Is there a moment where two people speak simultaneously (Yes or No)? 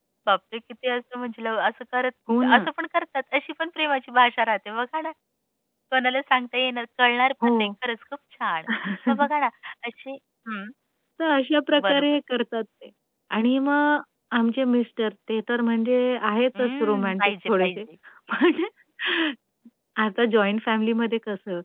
Yes